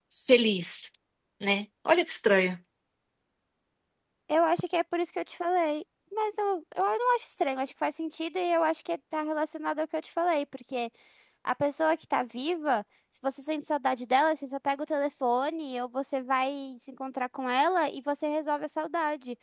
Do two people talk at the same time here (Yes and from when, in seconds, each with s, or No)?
No